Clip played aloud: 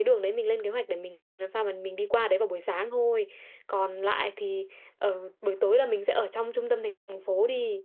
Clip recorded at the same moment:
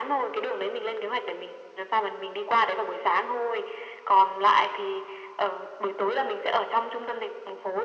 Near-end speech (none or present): none